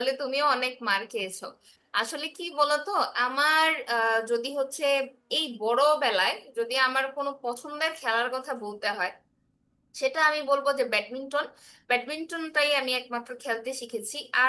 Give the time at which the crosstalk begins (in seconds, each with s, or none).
none